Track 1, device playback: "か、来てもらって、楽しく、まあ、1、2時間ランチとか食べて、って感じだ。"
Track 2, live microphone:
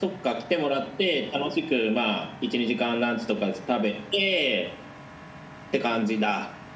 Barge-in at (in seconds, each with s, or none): none